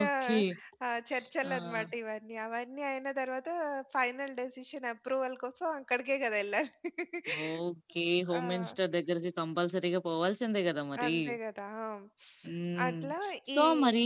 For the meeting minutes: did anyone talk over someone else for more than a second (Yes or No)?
No